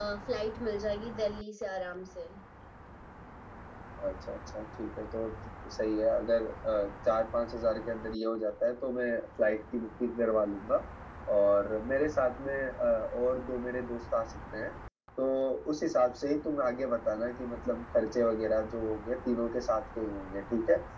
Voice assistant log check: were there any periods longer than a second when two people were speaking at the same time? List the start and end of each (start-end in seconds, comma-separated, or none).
none